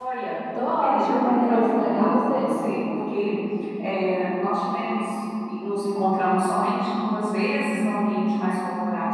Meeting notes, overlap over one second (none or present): present